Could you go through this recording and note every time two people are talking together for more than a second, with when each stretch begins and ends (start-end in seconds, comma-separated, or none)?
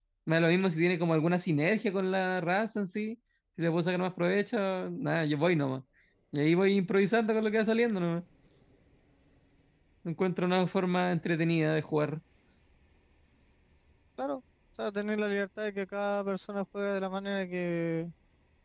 none